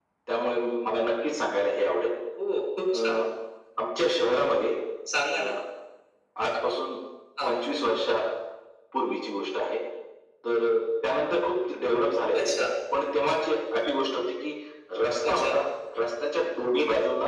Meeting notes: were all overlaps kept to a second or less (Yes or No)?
Yes